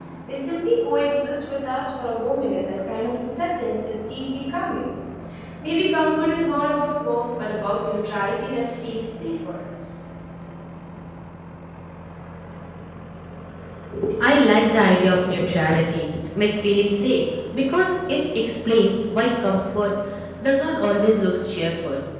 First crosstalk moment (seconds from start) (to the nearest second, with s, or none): none